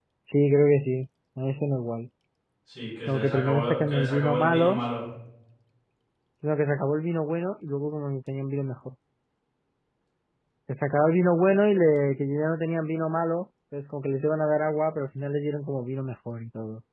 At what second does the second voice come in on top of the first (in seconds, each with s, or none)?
3.1 s